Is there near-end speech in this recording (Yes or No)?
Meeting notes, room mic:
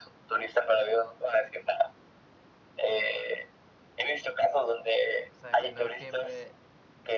Yes